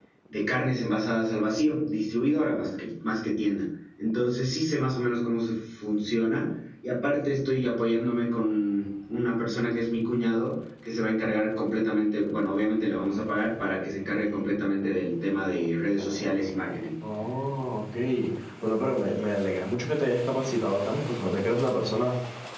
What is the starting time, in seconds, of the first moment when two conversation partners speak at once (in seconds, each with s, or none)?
none